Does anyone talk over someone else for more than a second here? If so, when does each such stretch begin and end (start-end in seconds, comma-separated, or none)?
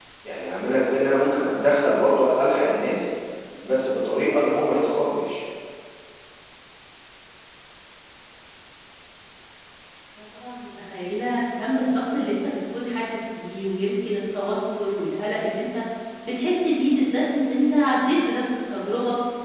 none